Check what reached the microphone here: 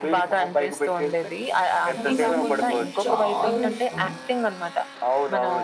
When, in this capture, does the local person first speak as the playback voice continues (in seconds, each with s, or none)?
2.0 s